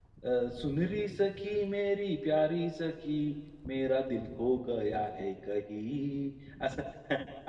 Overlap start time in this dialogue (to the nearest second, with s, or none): none